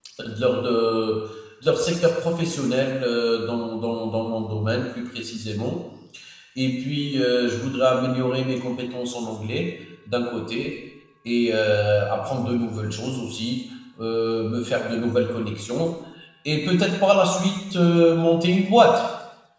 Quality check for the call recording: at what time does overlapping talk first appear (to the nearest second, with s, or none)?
none